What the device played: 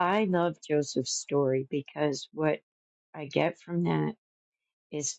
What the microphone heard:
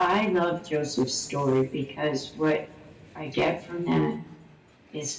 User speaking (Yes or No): No